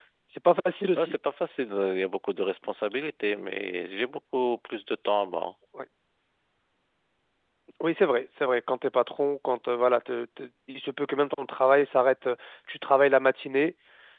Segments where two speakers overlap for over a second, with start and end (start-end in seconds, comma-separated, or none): none